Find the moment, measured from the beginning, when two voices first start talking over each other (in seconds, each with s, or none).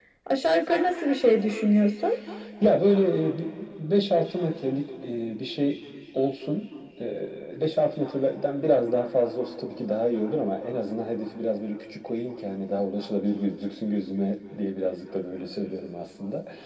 none